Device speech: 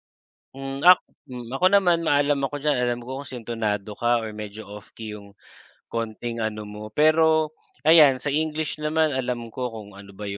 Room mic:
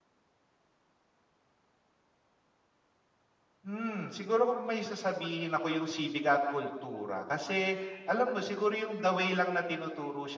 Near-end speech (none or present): present